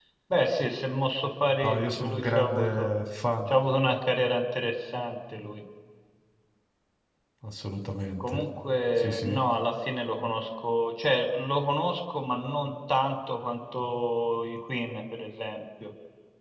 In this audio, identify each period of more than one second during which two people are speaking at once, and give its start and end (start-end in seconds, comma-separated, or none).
1.6-2.9